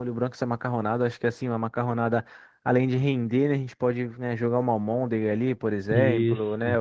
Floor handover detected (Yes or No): No